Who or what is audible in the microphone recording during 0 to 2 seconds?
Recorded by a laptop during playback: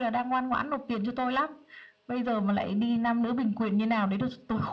echo only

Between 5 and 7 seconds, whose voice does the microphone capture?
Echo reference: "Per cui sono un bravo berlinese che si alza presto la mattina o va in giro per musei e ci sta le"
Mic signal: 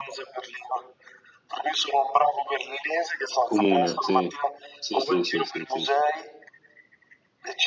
both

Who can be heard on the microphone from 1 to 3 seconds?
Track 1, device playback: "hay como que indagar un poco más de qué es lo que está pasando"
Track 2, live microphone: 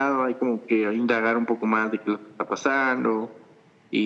echo only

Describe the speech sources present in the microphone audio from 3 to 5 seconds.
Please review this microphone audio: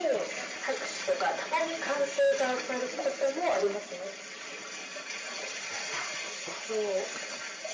echo only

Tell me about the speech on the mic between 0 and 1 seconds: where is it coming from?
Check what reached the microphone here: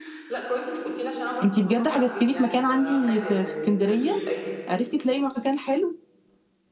echo only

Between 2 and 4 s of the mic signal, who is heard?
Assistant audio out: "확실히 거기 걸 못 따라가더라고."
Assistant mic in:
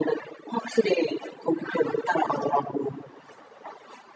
echo only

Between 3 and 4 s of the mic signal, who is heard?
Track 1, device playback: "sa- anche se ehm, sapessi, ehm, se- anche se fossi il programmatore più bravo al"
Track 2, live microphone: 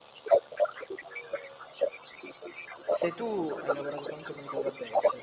both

